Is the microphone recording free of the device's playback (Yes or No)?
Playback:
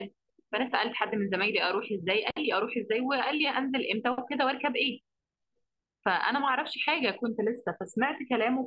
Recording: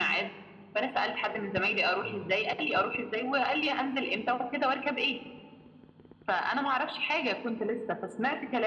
No